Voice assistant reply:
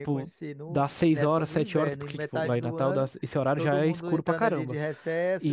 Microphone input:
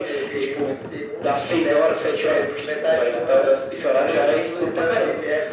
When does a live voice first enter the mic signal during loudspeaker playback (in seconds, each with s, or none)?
none